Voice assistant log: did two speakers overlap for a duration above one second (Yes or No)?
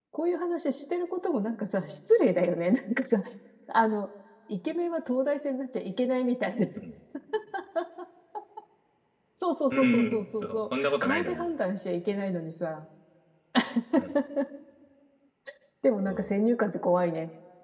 Yes